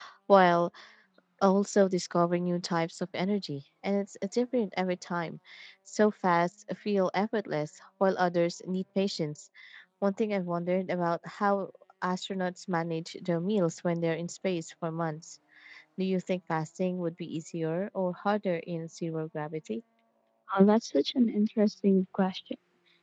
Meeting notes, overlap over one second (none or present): none